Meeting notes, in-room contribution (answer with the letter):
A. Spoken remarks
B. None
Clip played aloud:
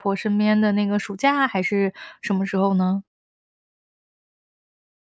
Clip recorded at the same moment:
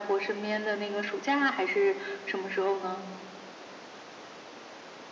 B